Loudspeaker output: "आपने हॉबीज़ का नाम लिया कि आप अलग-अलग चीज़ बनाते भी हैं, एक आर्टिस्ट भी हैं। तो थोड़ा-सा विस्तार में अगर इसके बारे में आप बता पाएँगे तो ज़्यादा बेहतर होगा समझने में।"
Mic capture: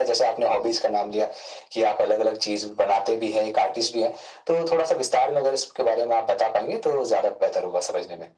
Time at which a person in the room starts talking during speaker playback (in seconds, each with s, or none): none